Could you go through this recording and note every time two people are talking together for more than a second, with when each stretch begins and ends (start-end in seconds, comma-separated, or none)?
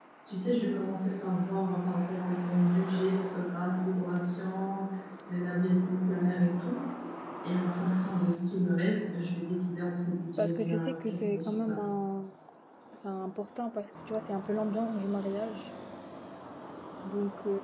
10.4-11.9